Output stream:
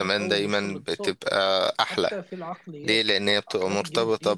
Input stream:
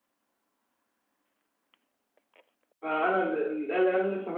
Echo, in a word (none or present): none